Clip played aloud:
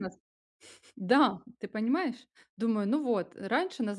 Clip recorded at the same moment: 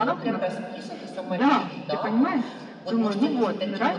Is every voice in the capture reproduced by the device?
No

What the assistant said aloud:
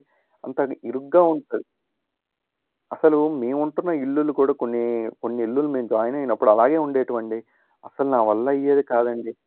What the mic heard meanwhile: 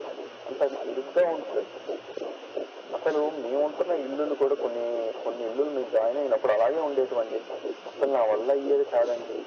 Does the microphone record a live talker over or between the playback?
No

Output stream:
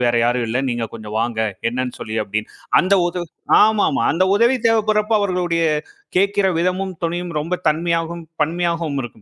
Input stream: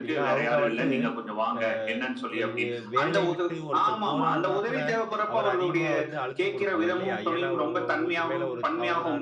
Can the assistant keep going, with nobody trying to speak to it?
No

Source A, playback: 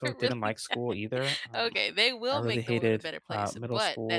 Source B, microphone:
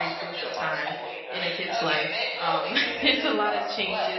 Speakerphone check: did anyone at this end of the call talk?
Yes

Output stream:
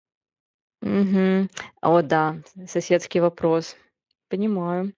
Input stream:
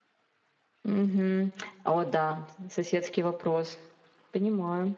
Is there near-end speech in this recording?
No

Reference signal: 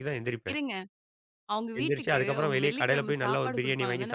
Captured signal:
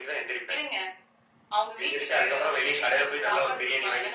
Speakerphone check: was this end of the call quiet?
Yes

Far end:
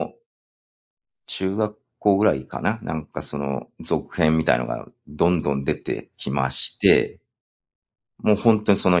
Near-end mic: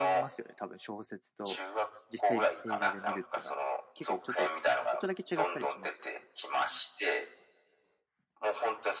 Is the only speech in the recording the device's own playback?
No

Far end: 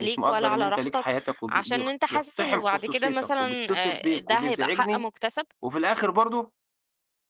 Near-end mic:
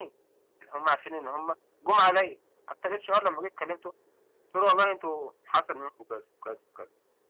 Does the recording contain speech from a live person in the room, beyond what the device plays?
Yes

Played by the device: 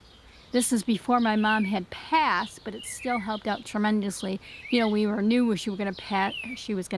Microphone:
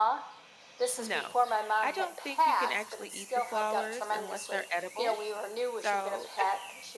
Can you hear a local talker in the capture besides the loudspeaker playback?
Yes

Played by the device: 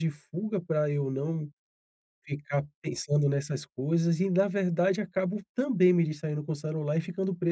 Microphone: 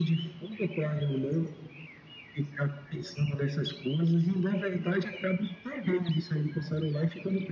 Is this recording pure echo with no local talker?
Yes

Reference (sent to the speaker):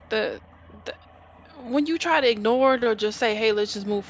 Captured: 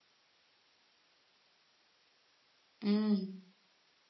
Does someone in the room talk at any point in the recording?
Yes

